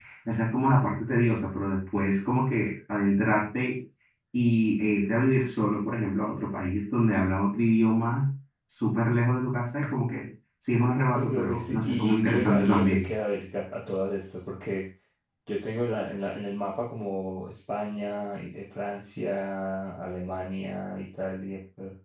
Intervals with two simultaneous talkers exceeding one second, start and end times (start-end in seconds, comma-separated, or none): 11.1-13.1